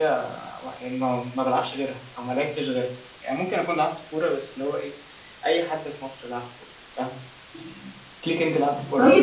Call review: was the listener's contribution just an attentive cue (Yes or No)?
No